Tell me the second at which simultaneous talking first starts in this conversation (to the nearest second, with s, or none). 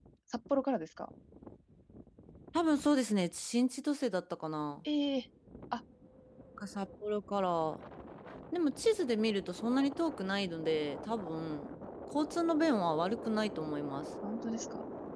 none